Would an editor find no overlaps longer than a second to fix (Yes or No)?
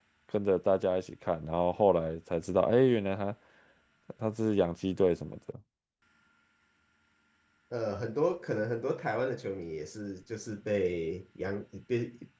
Yes